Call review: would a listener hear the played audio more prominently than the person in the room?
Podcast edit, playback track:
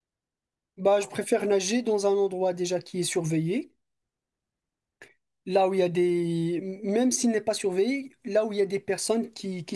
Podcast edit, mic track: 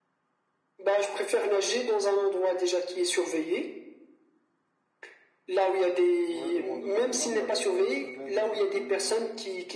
Yes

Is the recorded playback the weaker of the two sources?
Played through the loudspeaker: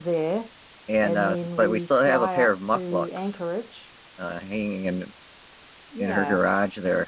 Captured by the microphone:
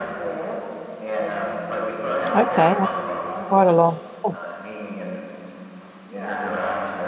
Yes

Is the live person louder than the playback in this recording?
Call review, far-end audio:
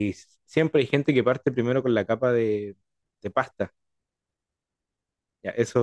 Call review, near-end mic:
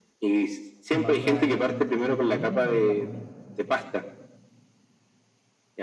No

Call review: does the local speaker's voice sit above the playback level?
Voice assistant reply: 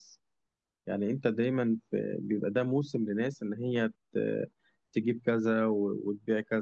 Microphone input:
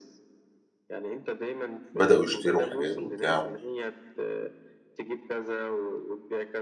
Yes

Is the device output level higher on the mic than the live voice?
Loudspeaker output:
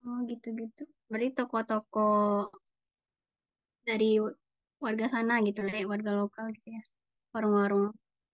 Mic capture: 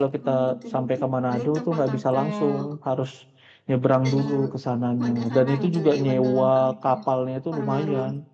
No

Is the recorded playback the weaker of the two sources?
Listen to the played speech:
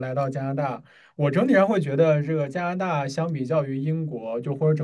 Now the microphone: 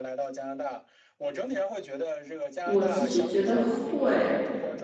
Yes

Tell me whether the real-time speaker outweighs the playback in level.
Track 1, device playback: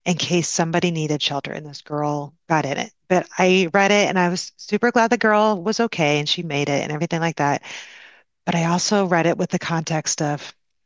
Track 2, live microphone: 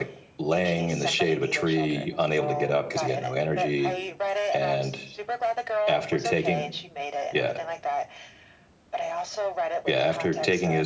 Yes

